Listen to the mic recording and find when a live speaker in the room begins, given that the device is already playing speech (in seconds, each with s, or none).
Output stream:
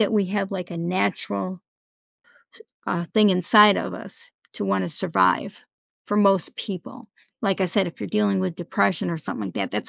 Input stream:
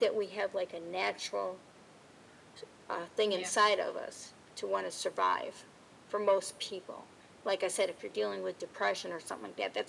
3.2 s